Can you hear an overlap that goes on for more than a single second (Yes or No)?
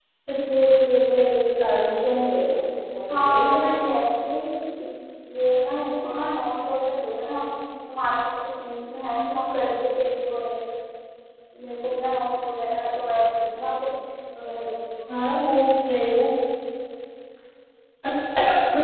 No